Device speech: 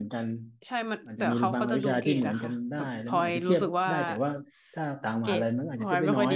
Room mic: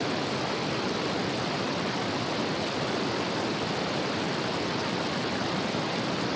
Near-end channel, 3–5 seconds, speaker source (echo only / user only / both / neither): neither